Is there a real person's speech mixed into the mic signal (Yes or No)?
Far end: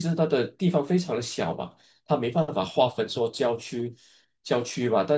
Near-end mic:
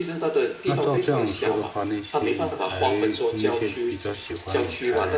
Yes